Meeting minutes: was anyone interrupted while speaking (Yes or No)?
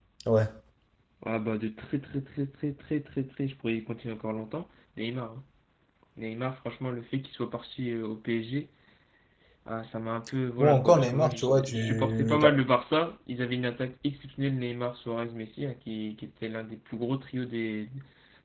Yes